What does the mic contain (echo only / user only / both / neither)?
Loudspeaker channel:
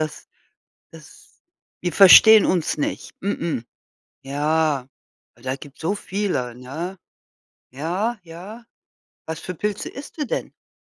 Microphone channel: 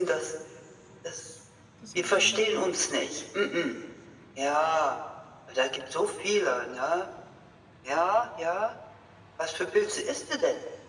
both